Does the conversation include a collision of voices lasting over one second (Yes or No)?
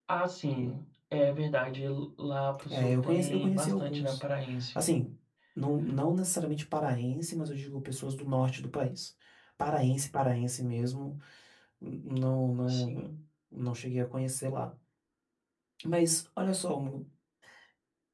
Yes